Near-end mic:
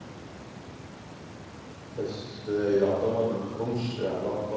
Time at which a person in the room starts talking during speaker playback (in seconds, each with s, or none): 1.9 s